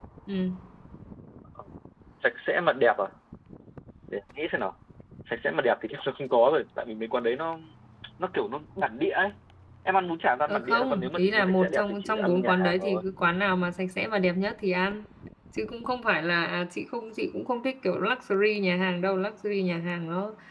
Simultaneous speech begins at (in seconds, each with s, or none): 10.5 s